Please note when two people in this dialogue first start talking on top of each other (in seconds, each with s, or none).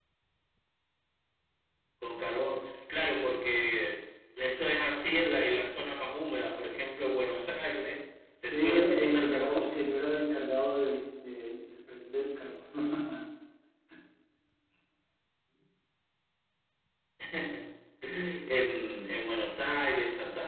8.5 s